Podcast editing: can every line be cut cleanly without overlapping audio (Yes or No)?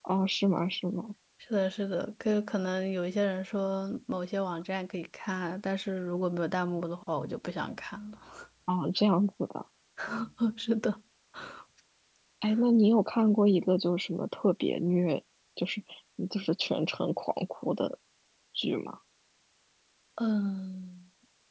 Yes